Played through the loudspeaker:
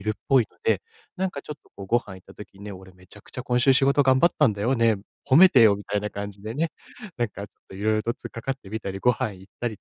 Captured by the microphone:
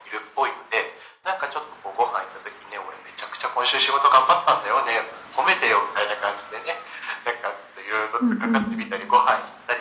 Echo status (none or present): present